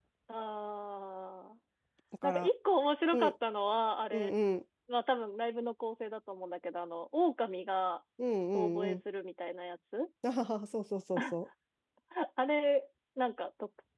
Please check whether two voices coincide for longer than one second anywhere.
No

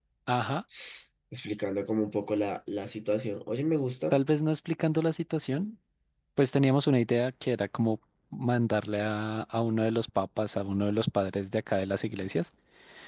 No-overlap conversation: Yes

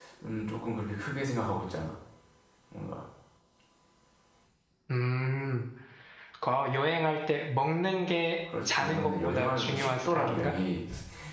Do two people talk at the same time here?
Yes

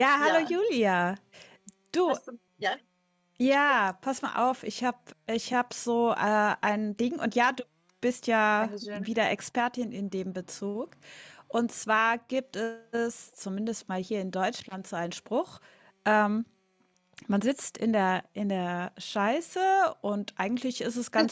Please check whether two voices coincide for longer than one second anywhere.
No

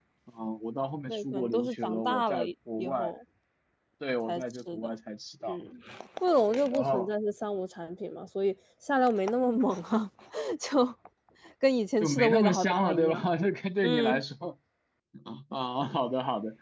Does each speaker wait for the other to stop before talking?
No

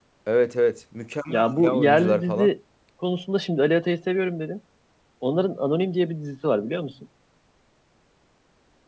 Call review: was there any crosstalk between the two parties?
Yes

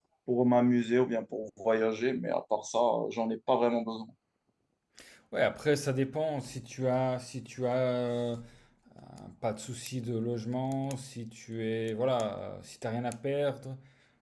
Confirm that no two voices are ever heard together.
Yes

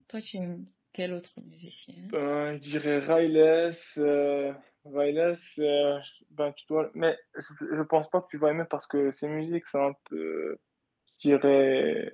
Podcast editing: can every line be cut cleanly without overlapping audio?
Yes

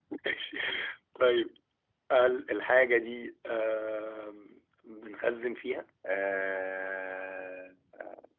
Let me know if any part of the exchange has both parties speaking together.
No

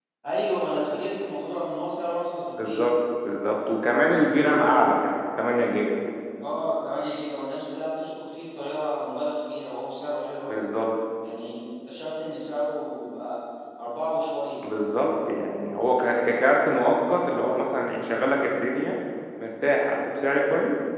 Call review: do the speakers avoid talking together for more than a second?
Yes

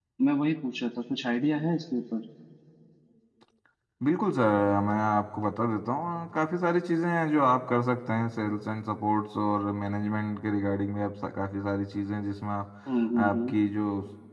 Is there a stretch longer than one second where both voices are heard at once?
No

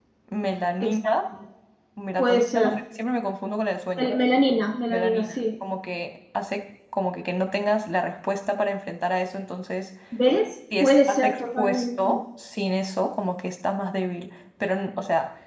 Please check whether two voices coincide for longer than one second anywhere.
Yes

